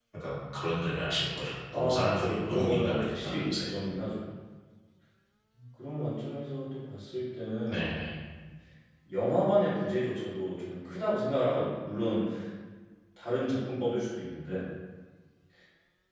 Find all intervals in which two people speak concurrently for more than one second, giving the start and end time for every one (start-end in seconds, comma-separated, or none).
1.7-3.7